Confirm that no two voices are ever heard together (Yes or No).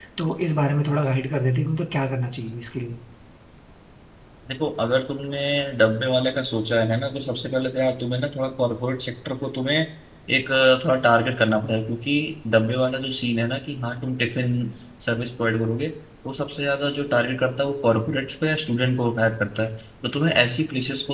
Yes